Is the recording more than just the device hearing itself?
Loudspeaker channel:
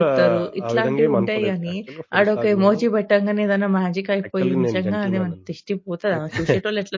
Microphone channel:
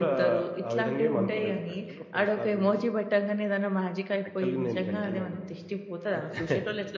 No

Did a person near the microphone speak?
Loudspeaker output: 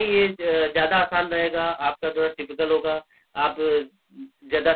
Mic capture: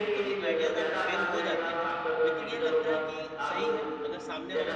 Yes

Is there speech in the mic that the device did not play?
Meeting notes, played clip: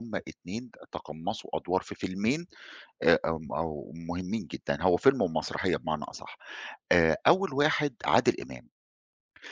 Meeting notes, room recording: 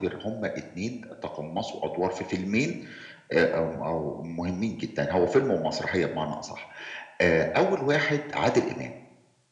No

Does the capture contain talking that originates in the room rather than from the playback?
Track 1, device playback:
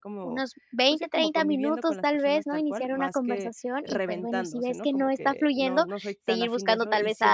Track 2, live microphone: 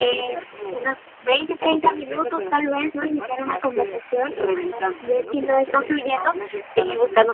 No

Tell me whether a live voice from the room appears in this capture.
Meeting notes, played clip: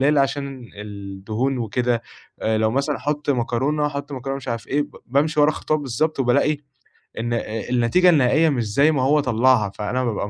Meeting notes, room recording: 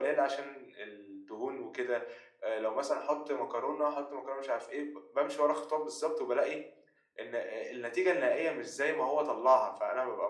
No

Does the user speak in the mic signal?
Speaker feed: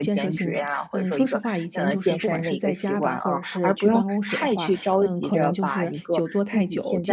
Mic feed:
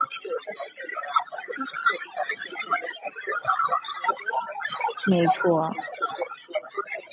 Yes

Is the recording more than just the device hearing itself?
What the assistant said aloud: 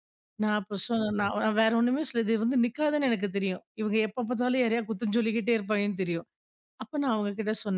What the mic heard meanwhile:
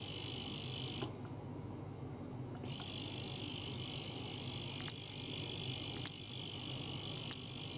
No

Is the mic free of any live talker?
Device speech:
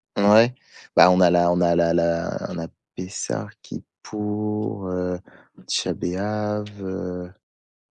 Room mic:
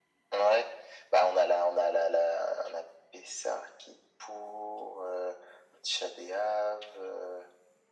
Yes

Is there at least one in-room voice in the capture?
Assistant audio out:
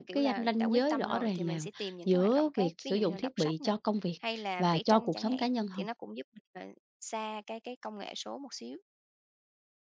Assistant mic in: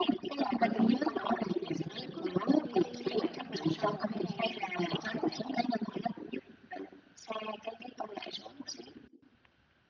Yes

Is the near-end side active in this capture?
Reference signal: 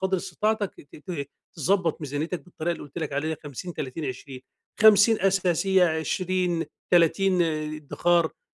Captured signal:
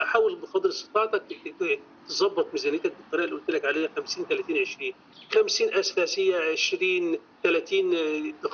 No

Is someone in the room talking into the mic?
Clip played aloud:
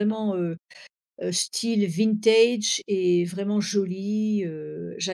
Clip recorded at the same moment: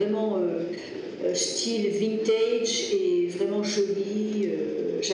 No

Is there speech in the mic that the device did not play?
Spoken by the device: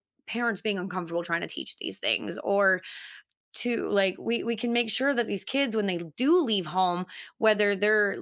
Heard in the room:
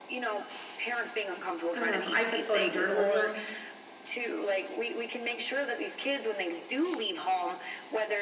Yes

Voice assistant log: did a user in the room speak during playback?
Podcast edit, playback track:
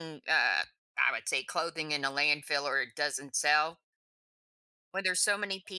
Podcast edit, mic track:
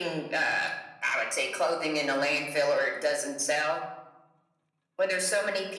No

